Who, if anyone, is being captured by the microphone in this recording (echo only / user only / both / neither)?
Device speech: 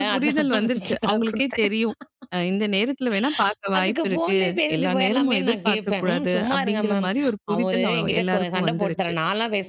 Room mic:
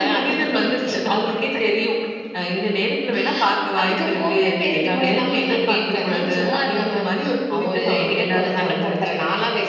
echo only